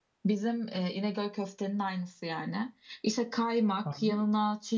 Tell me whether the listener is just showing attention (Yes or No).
Yes